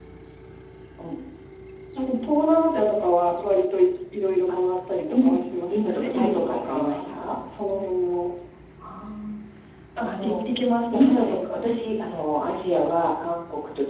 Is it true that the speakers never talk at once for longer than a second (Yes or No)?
No